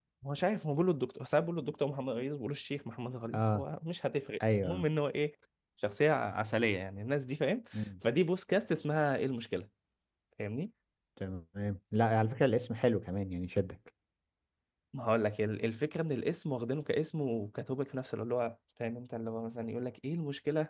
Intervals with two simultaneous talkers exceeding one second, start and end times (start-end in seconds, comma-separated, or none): none